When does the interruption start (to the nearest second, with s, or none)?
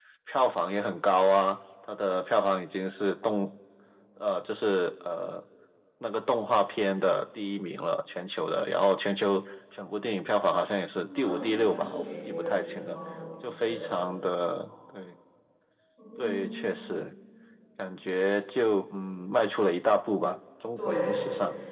11 s